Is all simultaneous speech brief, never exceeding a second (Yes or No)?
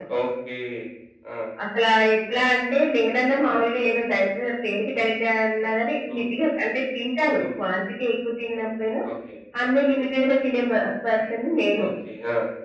Yes